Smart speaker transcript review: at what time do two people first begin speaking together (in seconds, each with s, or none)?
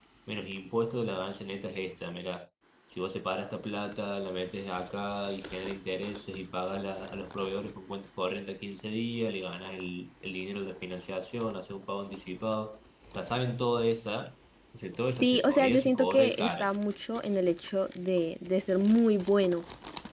15.2 s